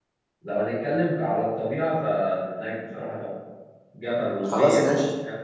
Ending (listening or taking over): listening